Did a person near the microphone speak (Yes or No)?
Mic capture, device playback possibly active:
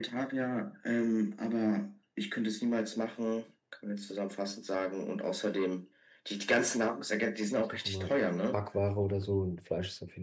Yes